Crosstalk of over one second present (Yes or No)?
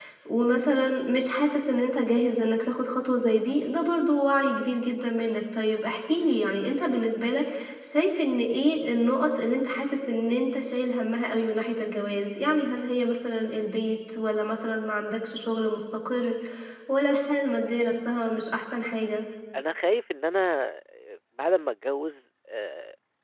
No